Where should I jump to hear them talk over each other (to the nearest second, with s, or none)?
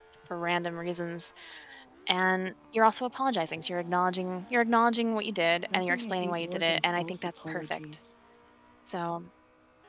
6 s